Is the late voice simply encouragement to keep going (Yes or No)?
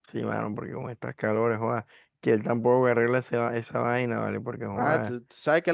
No